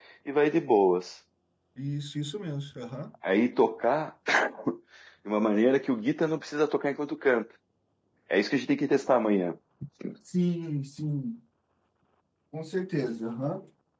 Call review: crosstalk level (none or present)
none